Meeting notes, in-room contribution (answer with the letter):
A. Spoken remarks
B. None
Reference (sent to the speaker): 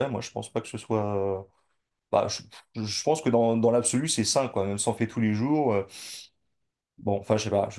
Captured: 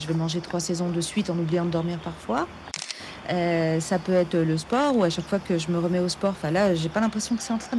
A